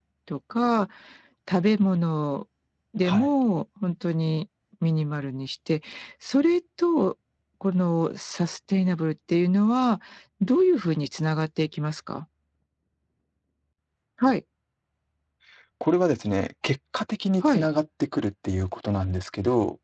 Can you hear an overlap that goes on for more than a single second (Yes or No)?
No